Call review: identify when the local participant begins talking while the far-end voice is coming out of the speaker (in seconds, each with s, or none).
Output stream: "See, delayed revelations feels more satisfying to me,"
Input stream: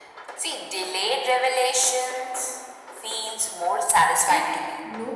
4.2 s